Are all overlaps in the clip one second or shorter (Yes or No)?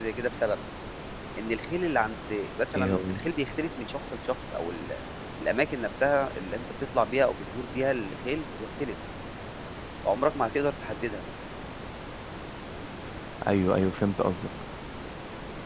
Yes